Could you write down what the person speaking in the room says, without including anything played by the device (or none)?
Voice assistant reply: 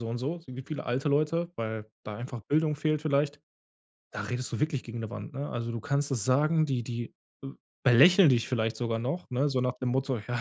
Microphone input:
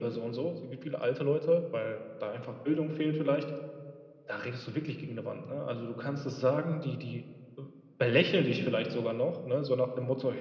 none